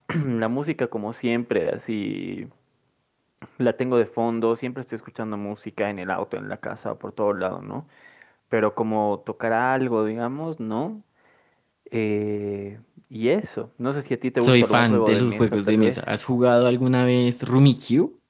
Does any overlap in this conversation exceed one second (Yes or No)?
Yes